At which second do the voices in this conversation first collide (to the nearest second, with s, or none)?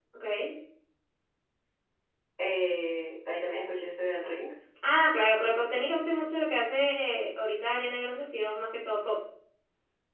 none